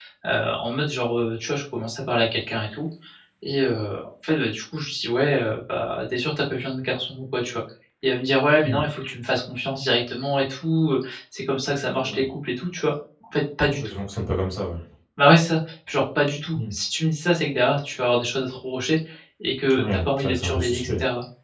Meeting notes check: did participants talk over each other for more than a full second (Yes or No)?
Yes